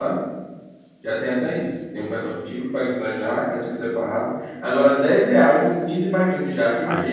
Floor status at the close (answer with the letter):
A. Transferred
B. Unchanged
A